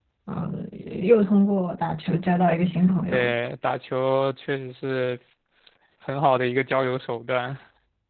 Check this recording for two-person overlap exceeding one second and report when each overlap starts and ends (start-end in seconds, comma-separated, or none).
none